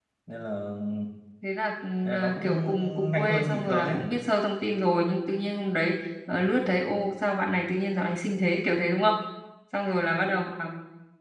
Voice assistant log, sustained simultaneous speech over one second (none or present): present